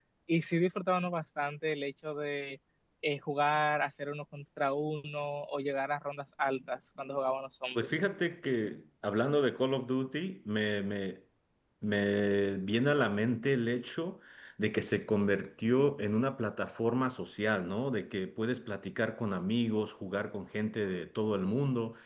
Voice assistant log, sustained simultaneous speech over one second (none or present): none